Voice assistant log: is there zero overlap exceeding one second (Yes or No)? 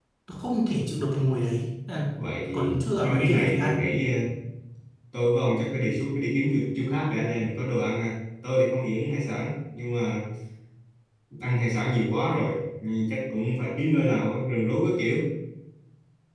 No